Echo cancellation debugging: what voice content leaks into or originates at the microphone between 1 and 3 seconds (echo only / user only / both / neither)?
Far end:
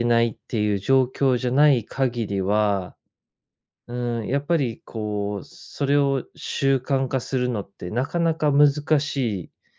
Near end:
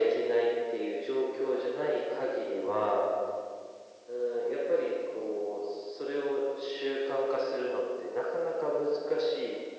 echo only